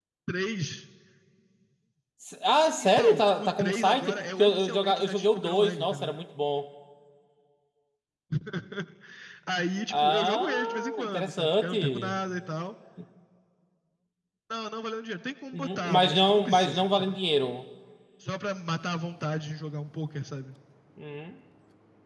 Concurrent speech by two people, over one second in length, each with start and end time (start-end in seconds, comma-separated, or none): 2.8-6.1, 9.9-12.2, 15.5-17.2